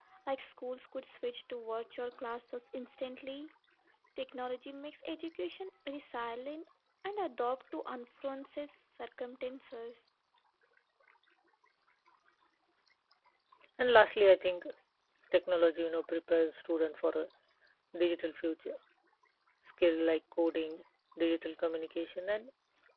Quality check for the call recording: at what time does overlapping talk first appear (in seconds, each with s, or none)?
none